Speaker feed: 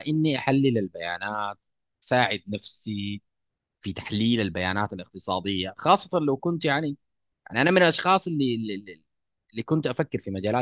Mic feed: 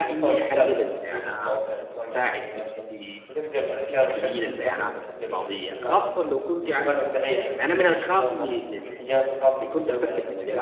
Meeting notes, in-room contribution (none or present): present